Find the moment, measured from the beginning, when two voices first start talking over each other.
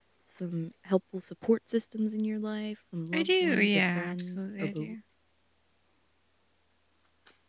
3.1 s

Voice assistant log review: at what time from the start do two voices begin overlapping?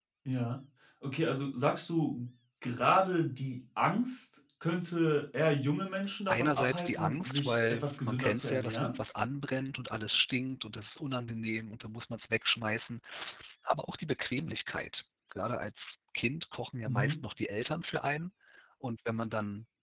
6.3 s

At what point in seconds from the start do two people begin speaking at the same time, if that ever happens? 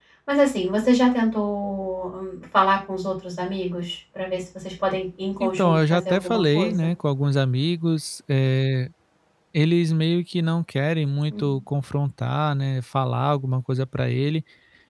5.4 s

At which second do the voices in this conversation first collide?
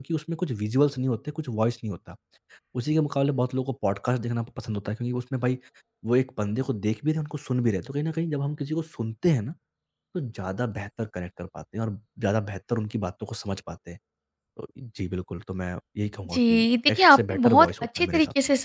16.2 s

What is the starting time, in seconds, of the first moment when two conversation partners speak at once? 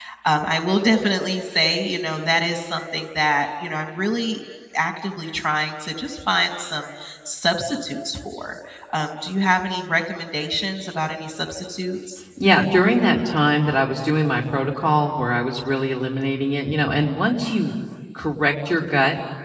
none

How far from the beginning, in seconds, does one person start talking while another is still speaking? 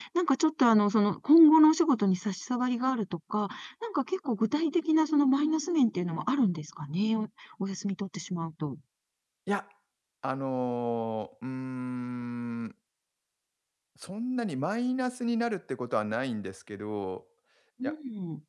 none

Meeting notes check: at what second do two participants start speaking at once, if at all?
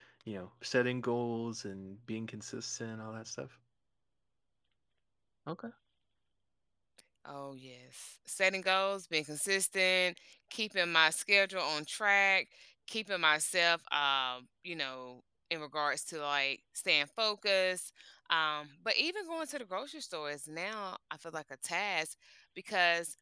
none

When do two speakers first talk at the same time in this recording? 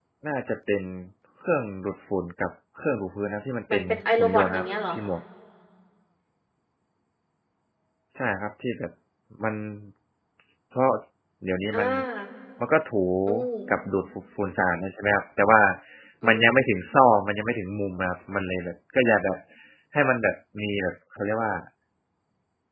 3.7 s

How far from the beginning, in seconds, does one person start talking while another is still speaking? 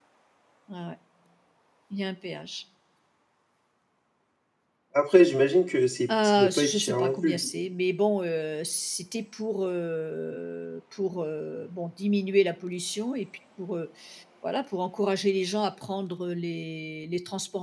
6.1 s

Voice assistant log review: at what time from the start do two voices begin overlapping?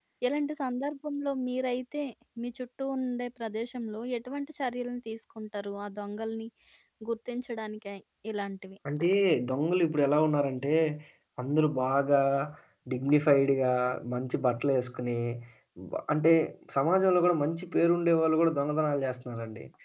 none

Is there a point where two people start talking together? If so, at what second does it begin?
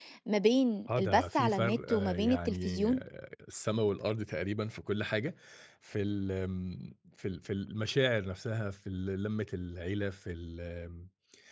1.0 s

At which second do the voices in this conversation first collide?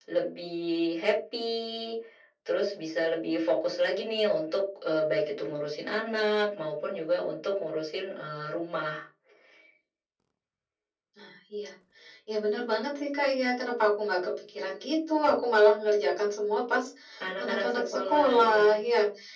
17.4 s

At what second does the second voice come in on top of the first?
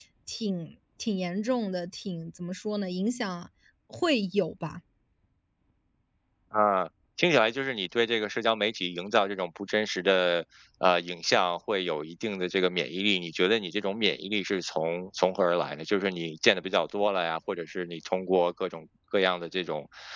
none

